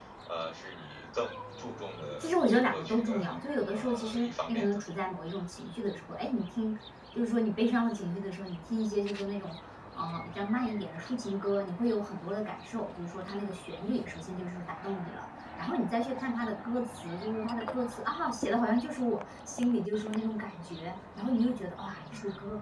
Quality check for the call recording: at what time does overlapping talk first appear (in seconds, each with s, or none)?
2.2 s